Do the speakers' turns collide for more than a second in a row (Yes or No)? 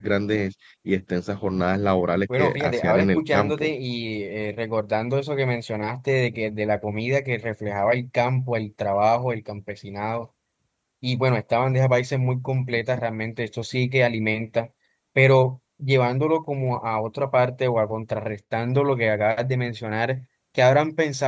Yes